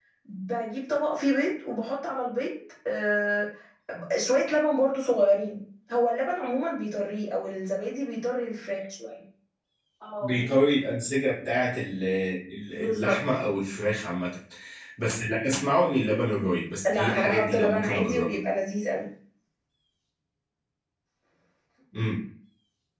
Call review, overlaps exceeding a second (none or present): present